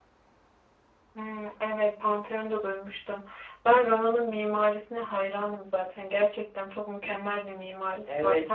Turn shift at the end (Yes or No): Yes